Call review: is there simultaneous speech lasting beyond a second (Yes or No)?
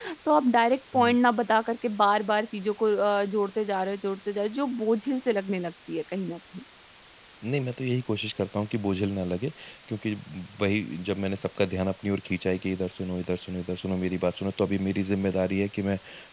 No